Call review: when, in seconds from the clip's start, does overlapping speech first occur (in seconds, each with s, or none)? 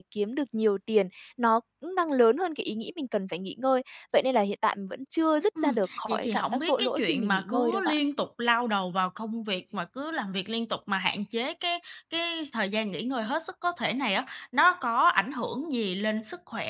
5.6 s